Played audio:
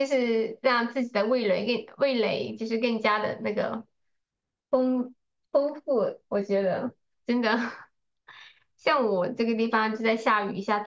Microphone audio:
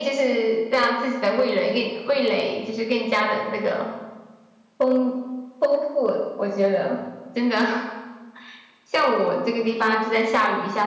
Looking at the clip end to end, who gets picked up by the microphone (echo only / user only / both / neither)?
echo only